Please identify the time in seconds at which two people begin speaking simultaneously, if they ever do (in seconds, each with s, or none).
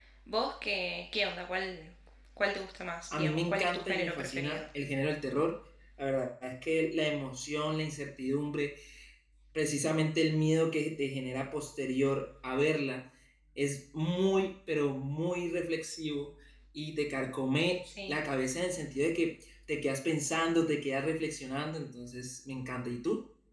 3.2 s